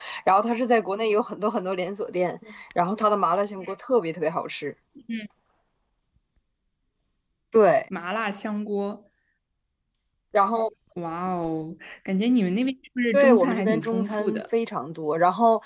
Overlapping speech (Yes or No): Yes